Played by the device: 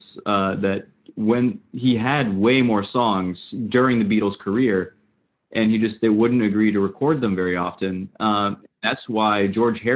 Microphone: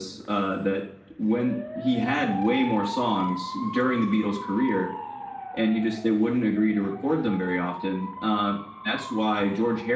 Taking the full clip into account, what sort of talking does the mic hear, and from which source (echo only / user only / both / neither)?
echo only